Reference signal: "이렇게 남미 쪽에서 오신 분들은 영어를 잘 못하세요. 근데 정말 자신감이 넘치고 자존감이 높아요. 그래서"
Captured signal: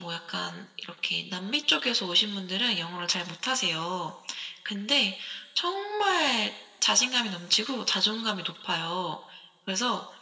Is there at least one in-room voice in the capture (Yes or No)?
No